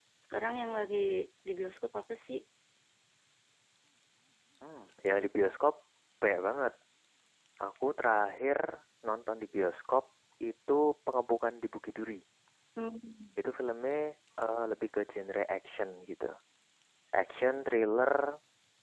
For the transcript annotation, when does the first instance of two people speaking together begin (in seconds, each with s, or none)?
none